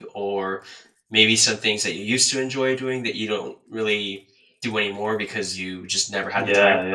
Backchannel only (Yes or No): No